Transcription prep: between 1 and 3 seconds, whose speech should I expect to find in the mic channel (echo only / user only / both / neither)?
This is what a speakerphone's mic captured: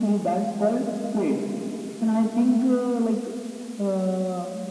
echo only